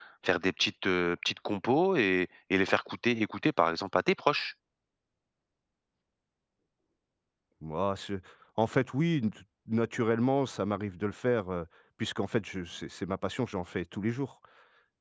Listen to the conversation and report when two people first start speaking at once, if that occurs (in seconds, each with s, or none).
none